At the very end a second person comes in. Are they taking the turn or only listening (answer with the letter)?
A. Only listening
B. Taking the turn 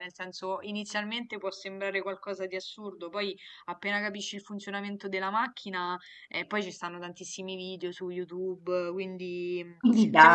A